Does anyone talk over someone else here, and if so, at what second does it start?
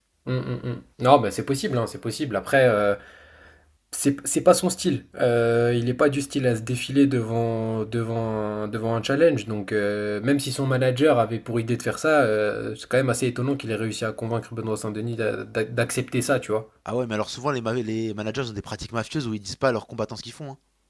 none

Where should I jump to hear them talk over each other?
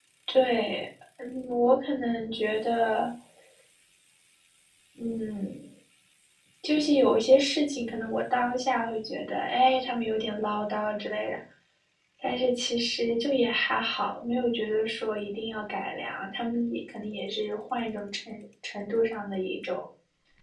none

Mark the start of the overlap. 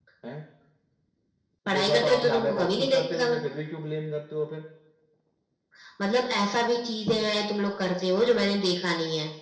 1.7 s

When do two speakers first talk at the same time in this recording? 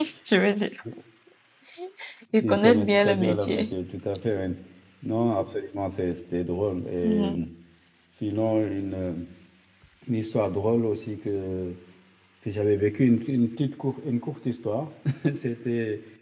2.4 s

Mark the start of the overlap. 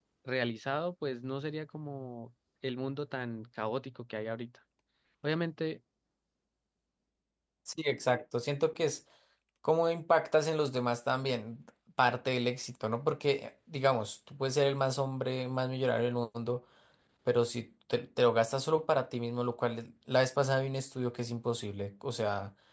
none

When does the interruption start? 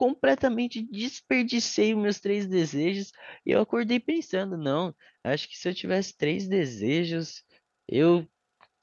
none

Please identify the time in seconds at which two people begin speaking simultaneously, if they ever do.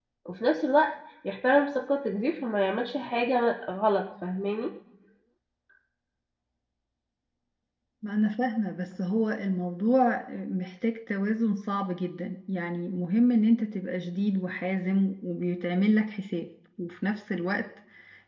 none

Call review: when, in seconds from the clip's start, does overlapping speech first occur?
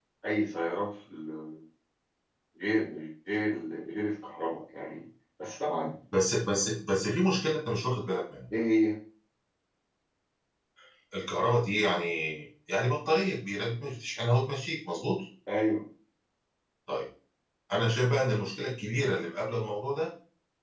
none

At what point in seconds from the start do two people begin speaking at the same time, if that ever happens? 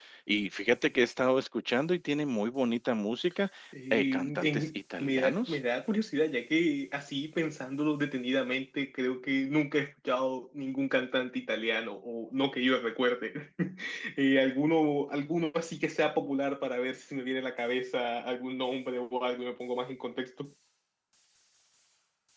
3.9 s

